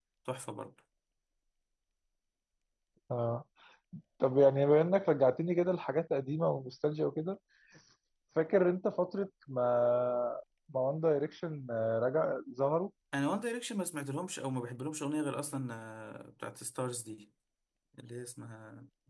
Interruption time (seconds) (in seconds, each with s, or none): none